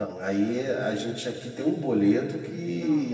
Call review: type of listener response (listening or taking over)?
listening